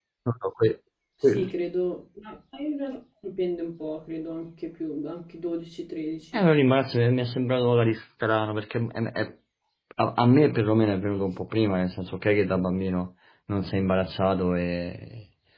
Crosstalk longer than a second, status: none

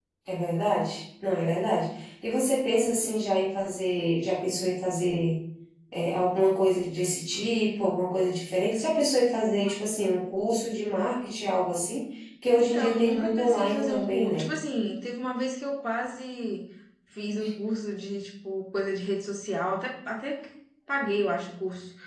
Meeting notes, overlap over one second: present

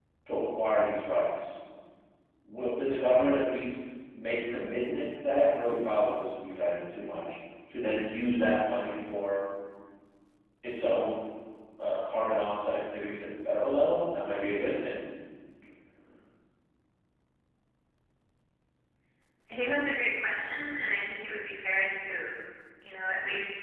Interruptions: none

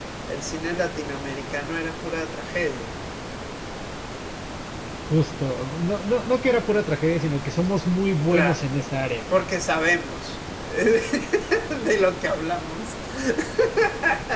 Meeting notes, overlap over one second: none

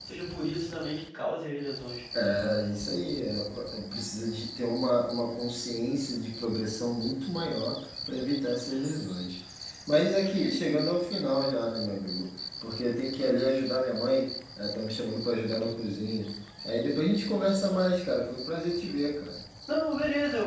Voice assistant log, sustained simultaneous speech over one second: none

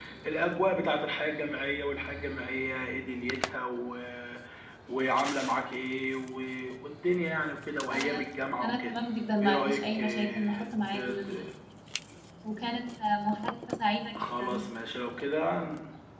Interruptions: present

